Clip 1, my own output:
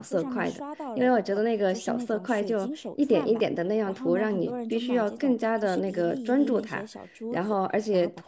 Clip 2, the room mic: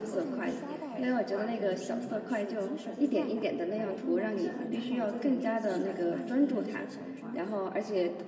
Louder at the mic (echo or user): echo